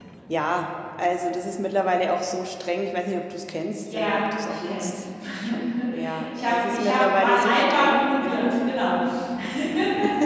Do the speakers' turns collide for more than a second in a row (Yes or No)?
Yes